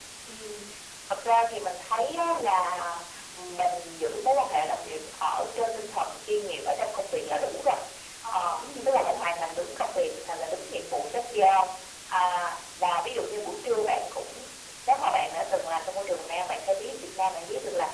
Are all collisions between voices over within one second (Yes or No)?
No